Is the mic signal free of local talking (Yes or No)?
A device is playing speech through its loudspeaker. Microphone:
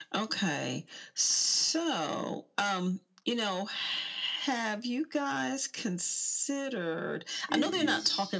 No